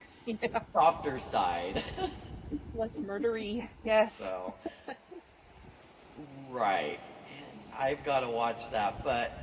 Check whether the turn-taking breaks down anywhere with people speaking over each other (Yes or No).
No